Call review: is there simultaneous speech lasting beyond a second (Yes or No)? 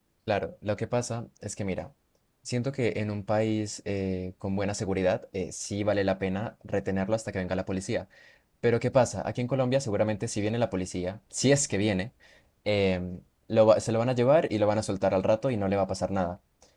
No